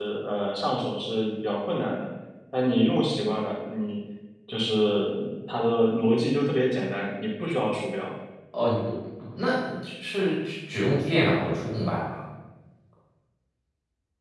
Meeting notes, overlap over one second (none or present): none